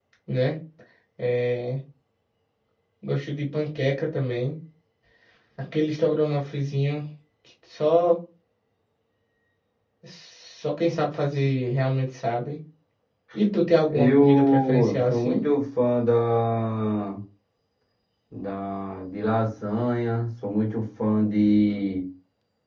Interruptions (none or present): present